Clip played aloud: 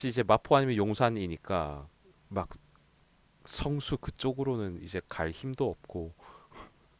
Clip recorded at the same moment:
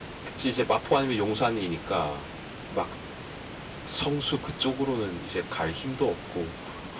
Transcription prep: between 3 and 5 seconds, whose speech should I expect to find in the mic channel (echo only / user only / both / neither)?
echo only